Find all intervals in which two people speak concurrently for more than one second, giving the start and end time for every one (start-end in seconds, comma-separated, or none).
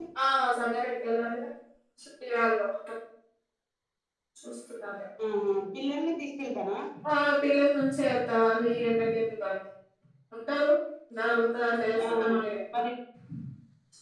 none